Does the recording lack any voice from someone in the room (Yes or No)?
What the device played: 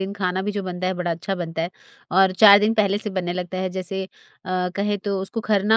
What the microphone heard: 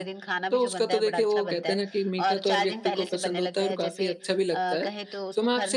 No